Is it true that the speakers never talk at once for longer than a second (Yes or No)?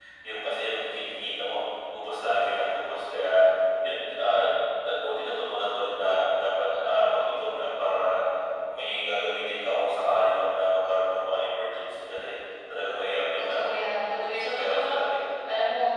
No